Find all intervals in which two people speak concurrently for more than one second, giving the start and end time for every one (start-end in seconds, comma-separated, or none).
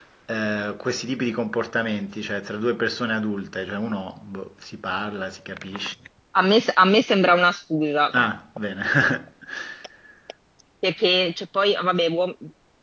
none